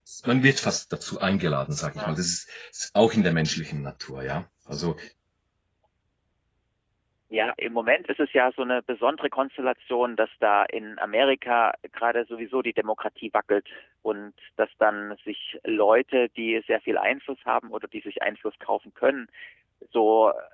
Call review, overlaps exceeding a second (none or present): none